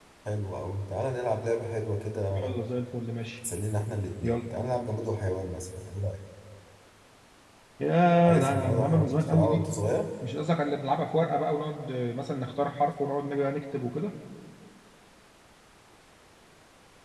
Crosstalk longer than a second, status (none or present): present